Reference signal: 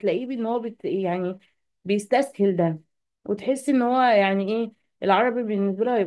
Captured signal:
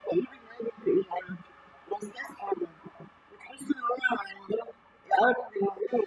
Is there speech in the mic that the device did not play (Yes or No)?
No